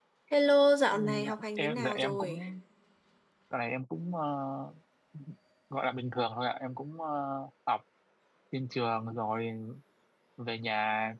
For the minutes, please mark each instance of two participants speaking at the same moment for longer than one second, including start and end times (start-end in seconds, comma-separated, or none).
0.9-2.4